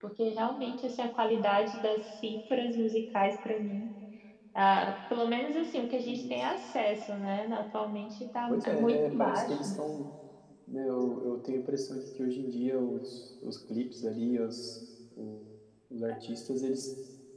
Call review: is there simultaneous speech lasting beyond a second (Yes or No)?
Yes